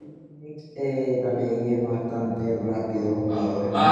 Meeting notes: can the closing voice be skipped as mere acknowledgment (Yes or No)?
No